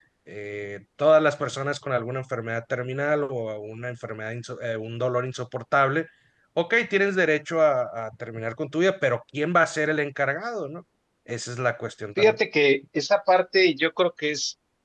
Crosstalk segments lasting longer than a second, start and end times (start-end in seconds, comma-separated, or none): none